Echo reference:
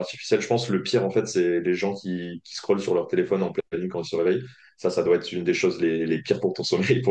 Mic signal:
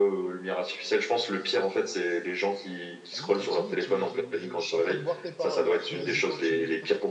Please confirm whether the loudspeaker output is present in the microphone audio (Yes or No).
Yes